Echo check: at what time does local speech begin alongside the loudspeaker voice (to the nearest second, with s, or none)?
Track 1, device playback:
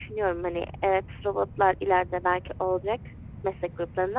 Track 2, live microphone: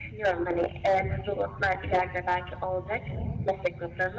none